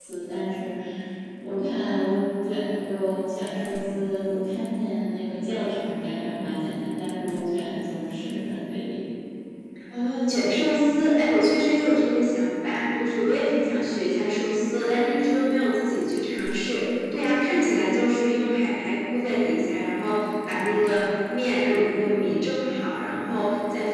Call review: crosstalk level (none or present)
none